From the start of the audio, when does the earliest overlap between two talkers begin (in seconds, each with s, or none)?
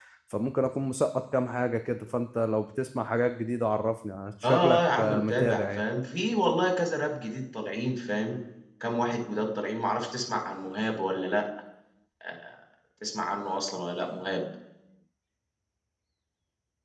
4.4 s